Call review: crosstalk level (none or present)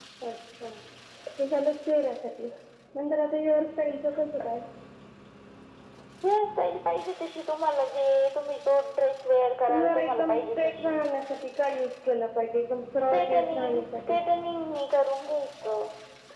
present